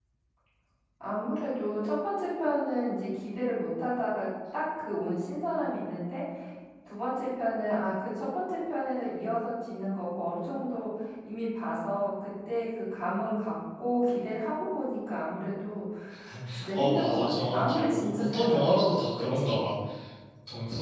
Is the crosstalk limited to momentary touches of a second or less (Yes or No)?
No